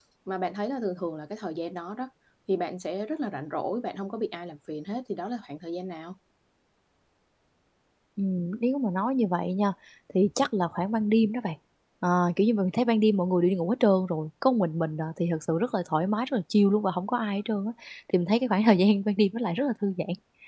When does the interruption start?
none

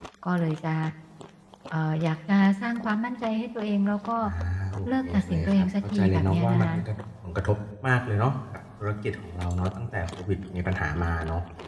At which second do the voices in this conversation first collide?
4.9 s

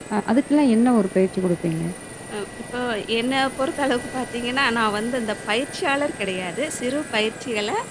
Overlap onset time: none

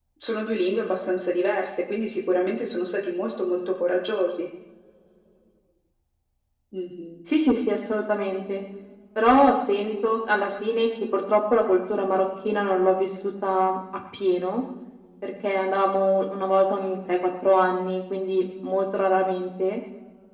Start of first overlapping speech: none

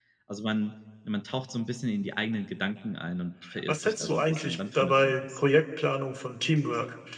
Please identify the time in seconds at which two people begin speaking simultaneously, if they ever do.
3.4 s

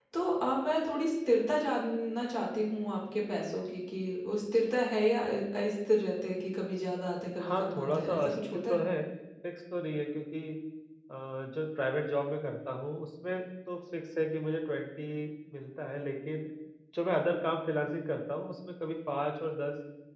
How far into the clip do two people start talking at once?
7.4 s

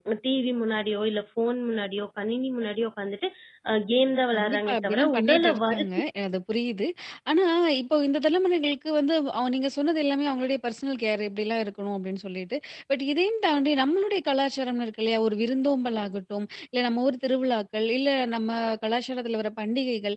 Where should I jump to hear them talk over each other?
4.3 s

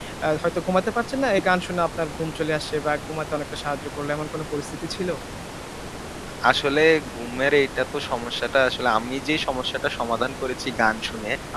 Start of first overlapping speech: none

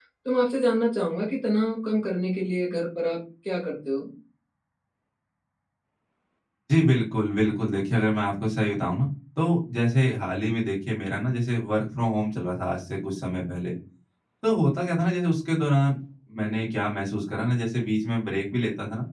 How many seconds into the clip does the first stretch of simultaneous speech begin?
none

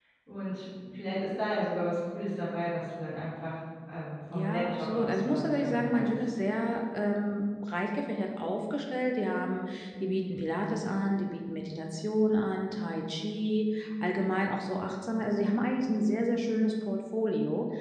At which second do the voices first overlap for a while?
4.3 s

